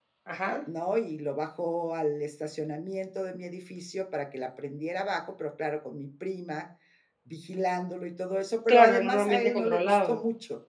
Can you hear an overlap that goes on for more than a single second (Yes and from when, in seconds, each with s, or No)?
Yes, from 8.7 s